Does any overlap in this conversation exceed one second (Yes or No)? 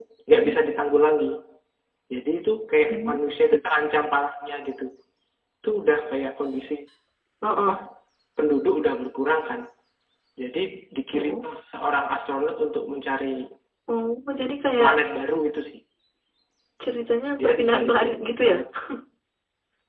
Yes